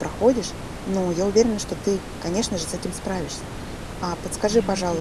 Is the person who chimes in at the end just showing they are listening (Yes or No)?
Yes